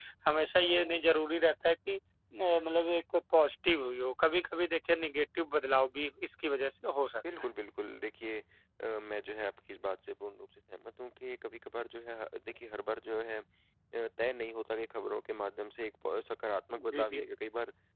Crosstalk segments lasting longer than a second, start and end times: none

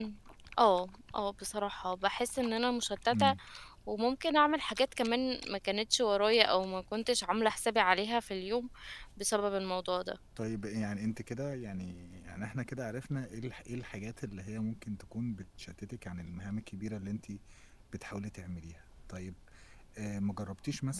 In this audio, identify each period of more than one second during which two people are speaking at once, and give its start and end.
none

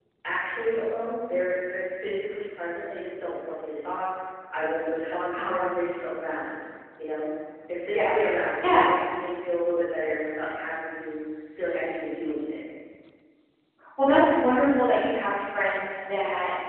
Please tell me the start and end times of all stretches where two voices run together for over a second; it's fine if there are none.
none

